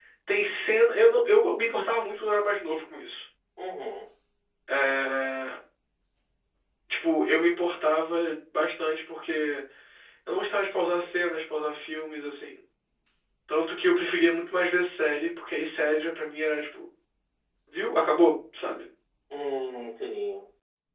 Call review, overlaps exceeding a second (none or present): none